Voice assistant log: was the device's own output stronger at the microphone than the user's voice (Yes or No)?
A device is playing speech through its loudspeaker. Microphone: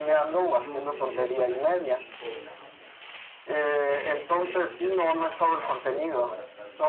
Yes